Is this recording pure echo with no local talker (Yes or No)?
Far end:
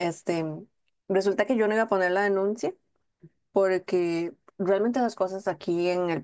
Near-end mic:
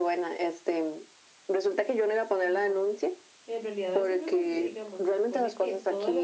No